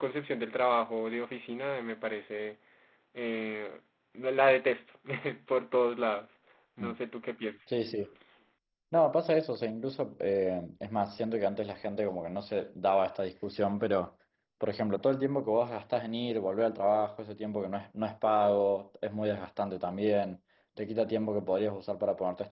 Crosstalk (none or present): none